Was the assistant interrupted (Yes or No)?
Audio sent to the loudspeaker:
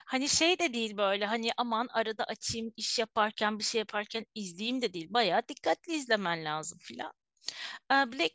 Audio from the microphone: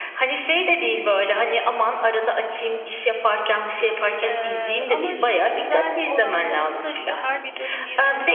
Yes